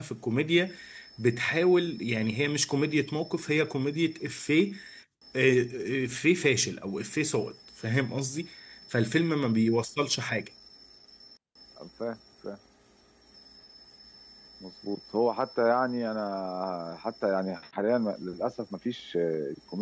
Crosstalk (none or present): none